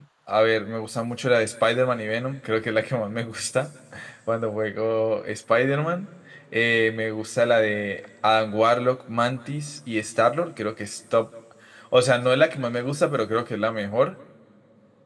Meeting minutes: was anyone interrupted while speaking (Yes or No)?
No